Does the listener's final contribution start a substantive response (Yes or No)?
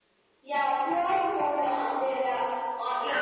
Yes